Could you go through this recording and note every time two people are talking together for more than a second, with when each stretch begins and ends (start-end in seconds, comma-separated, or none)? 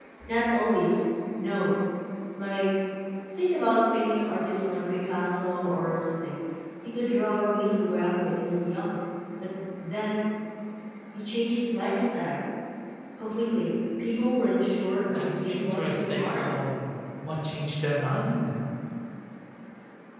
15.2-16.4